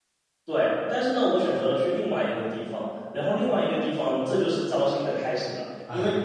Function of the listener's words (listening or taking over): listening